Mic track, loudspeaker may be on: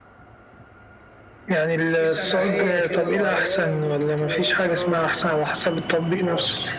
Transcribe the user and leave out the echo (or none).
في سماحية كده معينة ممكن تبقى في فراغ آه.